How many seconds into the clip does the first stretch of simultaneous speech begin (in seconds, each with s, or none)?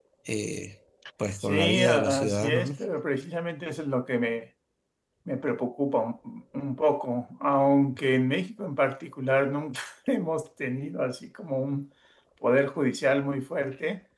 1.4 s